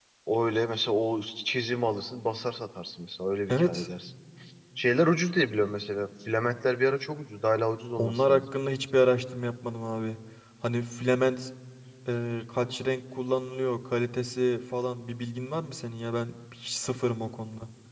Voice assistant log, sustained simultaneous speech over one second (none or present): none